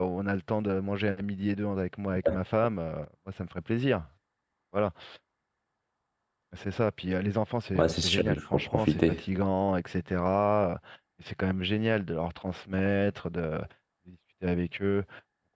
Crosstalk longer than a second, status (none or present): present